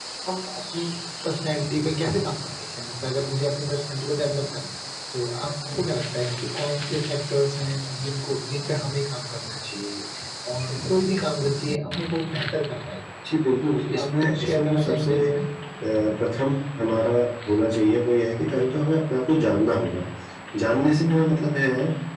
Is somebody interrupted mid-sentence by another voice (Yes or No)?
Yes